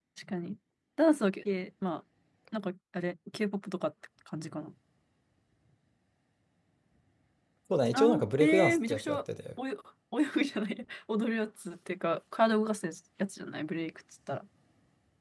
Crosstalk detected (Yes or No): Yes